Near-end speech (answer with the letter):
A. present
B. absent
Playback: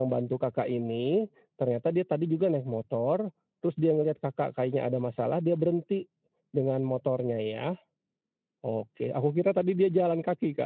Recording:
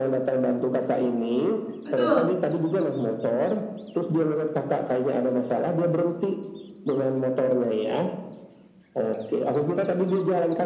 A